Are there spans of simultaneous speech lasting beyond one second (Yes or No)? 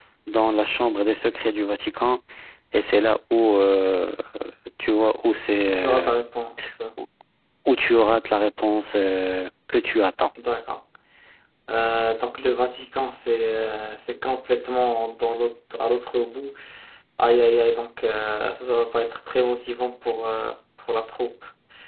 No